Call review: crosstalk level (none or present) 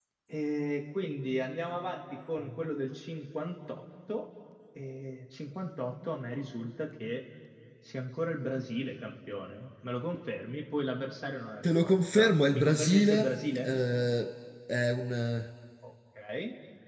present